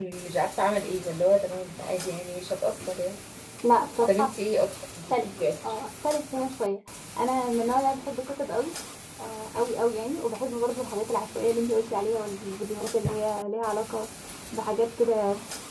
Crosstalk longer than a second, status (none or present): none